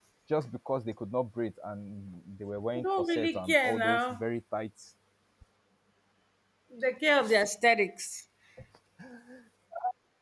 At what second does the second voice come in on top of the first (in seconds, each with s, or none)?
2.8 s